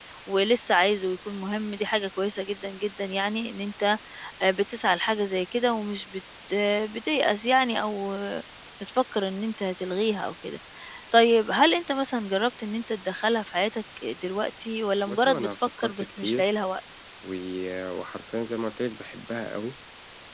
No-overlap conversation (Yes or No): No